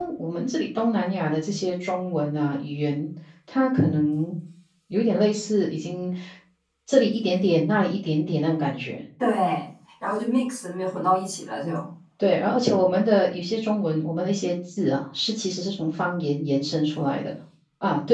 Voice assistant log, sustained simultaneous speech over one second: none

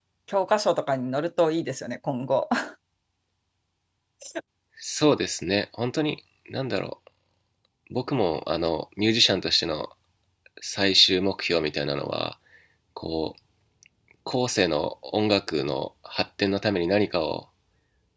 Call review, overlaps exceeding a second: none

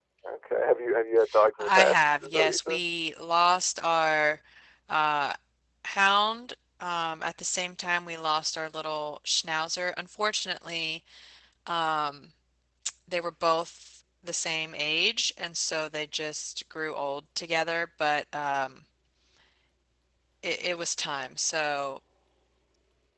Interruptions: present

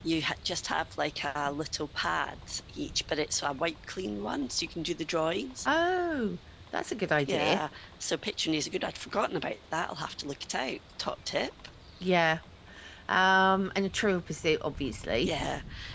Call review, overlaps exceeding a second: none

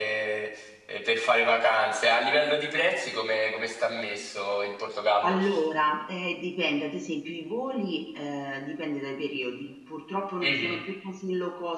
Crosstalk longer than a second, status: none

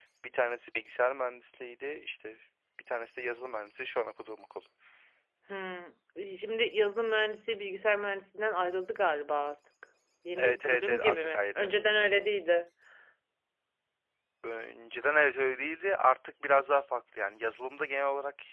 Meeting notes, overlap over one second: present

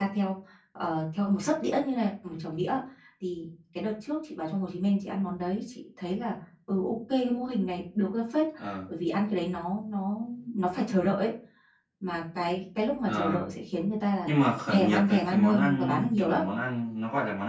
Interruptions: present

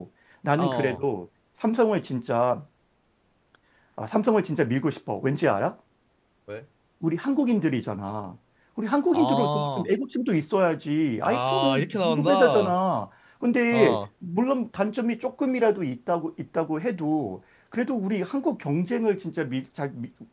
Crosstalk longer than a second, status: present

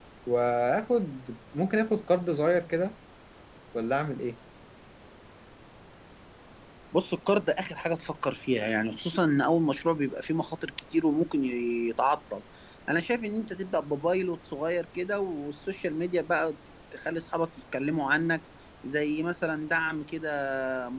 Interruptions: none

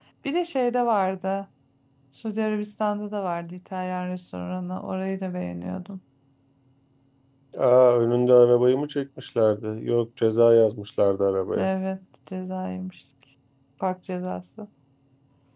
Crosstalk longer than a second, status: none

